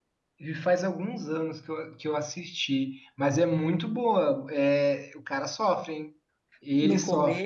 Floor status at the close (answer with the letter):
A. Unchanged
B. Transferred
B